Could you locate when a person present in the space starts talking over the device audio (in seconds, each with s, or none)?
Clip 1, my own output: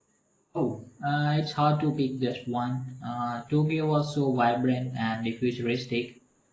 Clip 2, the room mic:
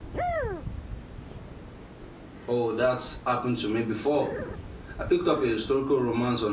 2.5 s